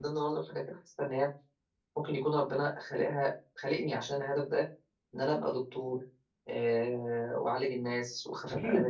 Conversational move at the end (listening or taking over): listening